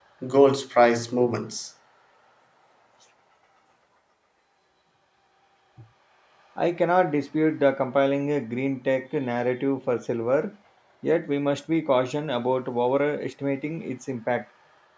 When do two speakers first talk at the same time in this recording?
none

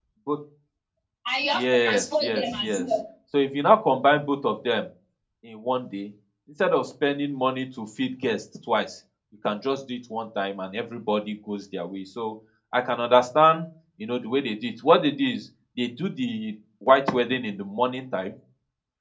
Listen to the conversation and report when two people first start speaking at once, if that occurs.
2 s

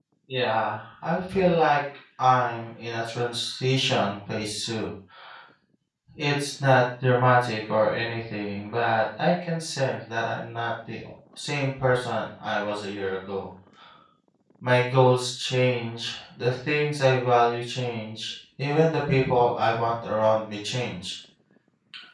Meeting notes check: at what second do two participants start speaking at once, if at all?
none

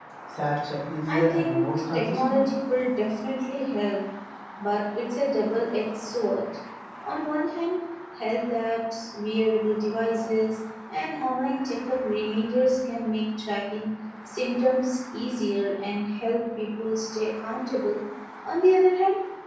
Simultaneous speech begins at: 1 s

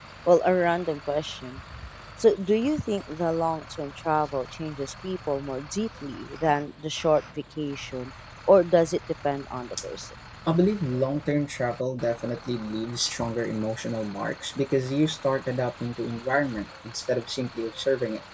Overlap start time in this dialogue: none

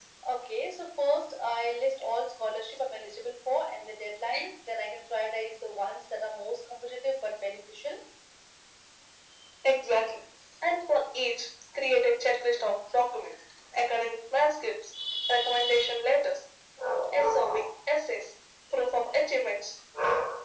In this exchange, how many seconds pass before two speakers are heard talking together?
none

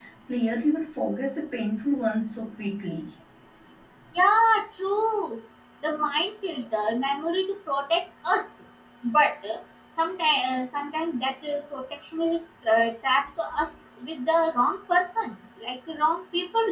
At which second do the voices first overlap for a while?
none

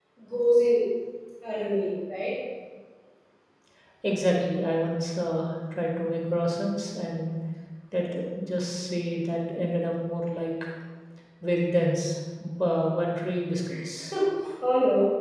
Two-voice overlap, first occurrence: none

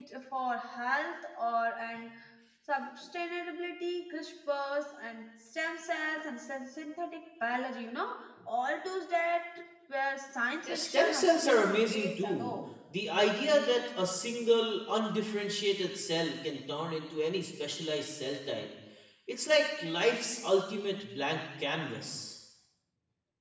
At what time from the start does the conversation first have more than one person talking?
11 s

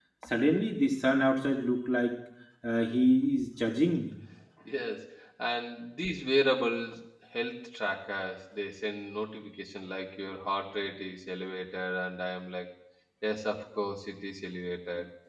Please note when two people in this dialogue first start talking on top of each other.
none

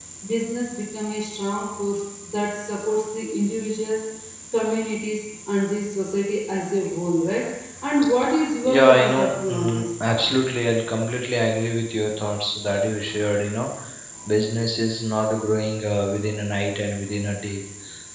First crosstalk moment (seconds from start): 9 s

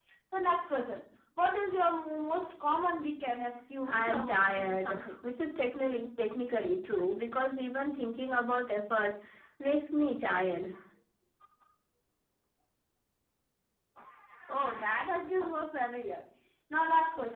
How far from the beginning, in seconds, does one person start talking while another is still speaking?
4 s

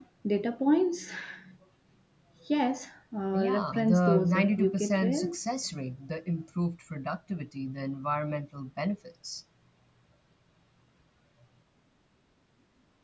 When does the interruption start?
3 s

